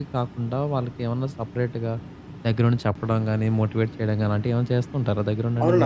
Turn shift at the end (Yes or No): Yes